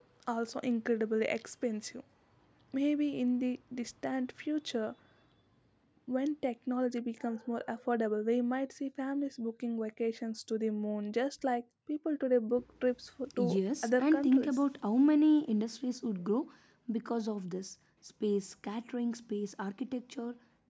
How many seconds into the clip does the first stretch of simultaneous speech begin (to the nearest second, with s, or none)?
13 s